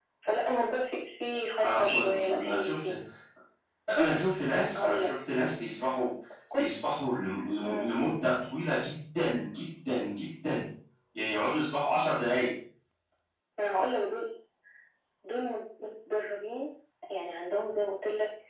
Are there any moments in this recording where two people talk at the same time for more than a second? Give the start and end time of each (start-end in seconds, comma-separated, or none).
1.6-3.0